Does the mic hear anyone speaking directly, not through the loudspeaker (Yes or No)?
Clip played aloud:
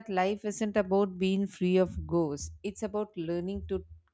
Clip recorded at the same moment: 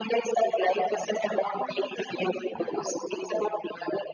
Yes